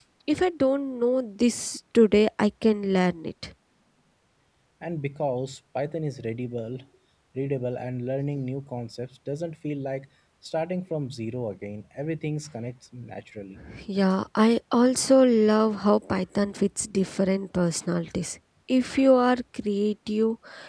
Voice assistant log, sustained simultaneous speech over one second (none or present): none